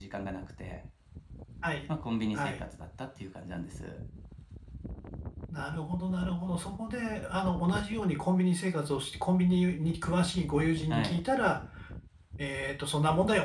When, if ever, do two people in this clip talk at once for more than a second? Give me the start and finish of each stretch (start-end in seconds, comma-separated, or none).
none